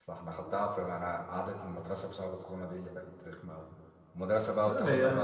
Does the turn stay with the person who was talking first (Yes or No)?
Yes